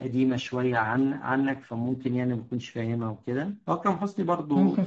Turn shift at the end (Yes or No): No